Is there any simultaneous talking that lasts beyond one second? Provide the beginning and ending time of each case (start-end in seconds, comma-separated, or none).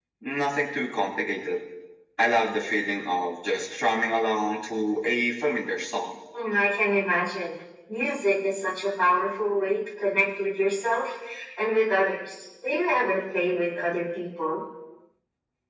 none